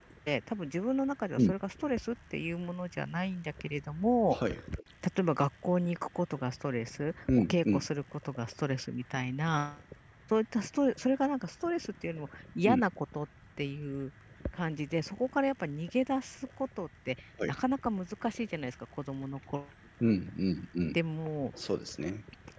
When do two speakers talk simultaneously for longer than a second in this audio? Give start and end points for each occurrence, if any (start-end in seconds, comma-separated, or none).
none